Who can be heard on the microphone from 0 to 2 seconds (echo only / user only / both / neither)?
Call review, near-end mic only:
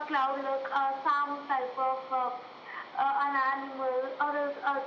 echo only